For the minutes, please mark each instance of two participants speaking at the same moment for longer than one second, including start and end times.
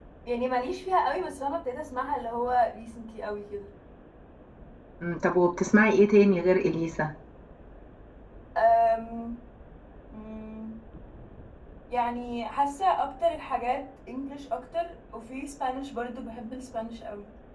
none

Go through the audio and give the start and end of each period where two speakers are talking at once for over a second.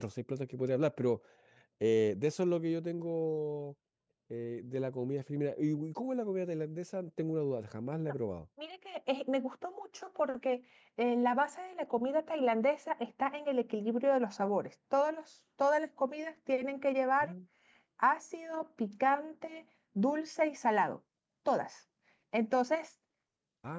none

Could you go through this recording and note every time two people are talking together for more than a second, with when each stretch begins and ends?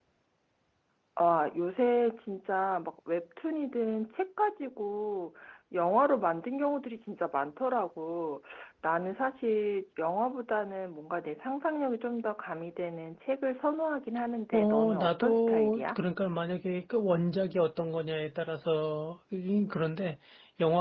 14.5-16.0

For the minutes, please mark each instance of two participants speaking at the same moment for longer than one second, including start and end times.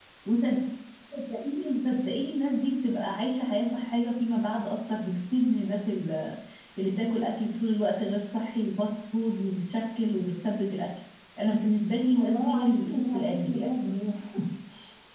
12.1-13.7

